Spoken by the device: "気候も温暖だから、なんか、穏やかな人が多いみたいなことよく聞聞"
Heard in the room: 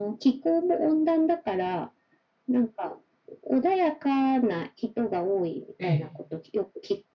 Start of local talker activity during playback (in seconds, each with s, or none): 5.8 s